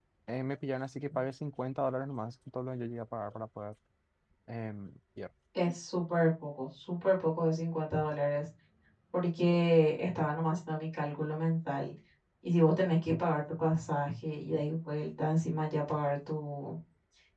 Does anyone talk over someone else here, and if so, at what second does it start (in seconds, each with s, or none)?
none